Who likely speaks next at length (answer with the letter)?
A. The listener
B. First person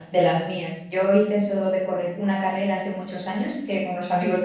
B